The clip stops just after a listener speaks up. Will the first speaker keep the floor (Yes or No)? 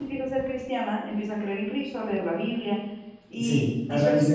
No